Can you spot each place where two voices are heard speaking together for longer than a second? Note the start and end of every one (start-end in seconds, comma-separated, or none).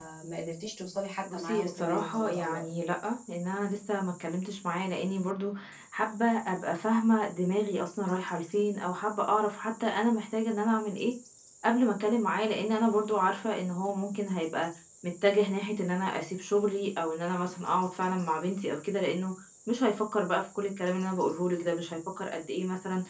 1.3-2.6